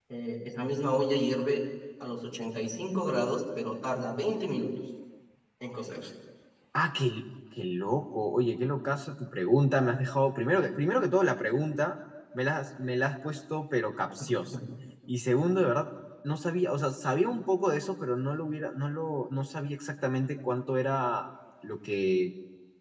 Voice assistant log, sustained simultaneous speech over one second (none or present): none